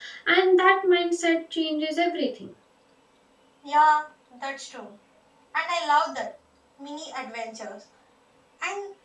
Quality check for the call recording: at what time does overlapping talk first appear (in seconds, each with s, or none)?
none